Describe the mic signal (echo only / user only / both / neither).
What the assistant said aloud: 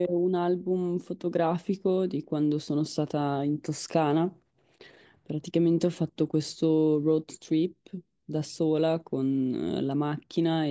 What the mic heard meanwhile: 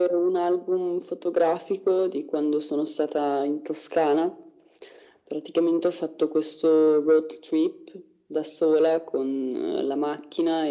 echo only